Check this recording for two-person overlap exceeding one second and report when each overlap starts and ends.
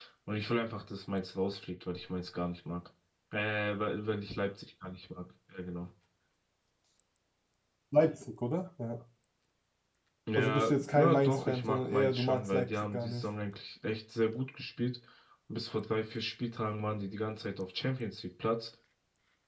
10.4-13.3

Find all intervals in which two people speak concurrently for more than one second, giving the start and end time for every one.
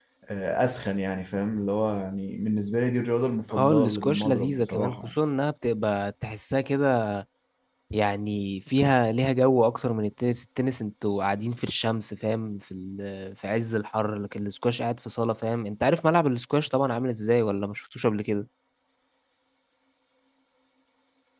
3.5-5.1

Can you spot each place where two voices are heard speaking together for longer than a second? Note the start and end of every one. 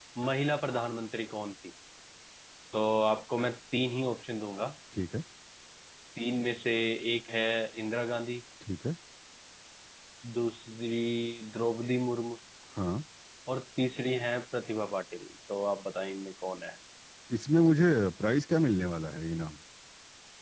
none

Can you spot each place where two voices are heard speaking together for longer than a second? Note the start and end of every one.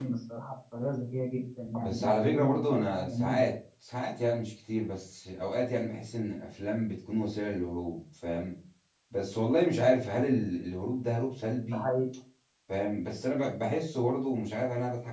1.8-3.4

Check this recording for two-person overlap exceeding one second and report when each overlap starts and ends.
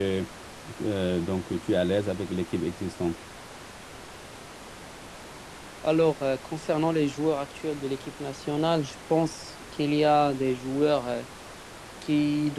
none

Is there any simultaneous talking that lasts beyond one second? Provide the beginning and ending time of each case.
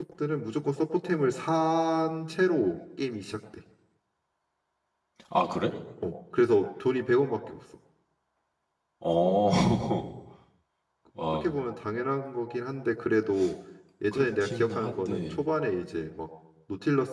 14.1-15.4

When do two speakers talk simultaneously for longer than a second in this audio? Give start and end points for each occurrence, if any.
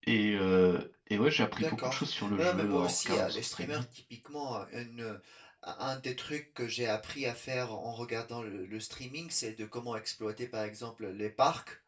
1.6-3.8

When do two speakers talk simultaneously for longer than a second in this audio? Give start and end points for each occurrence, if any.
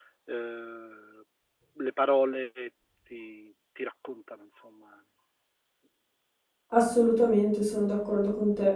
none

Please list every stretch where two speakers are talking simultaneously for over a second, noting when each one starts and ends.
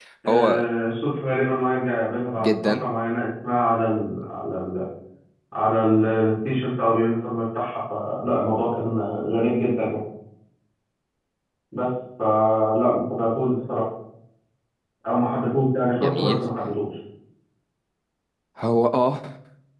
none

